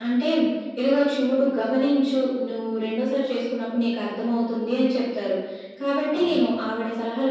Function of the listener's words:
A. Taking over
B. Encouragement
B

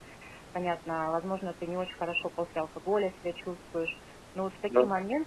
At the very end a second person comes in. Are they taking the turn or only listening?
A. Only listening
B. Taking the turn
A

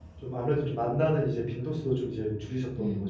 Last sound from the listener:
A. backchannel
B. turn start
B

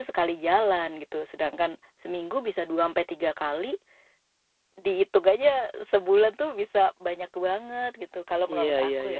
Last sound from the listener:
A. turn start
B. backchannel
A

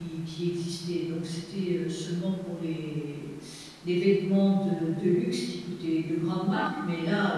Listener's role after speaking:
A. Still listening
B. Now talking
A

